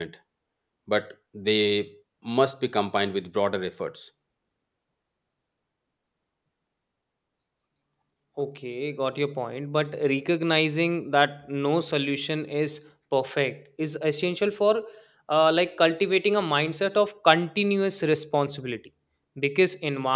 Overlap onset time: none

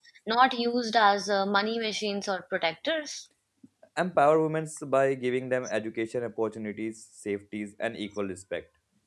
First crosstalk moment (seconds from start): none

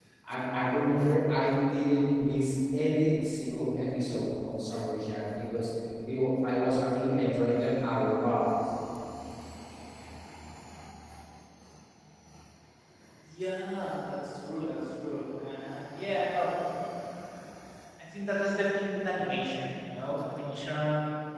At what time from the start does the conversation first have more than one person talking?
none

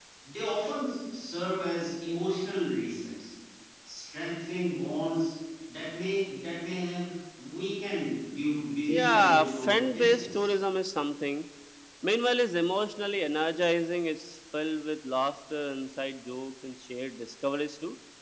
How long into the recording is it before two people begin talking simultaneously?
9 s

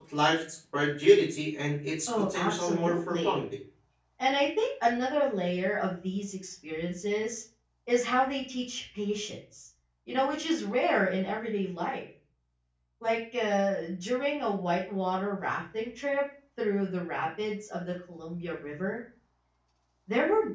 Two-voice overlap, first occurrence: 2 s

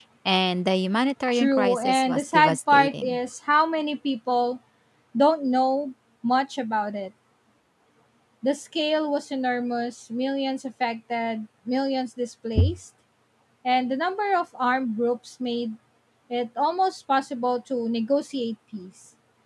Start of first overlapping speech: 1 s

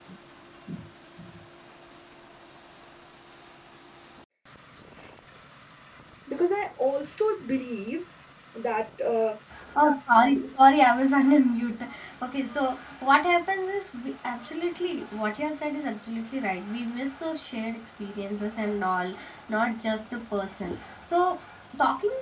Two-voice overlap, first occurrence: none

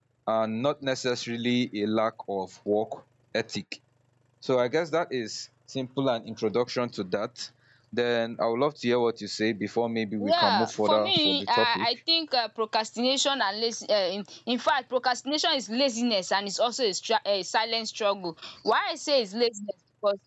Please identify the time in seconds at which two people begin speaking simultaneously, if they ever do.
10 s

